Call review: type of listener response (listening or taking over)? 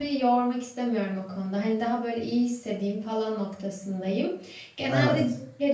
listening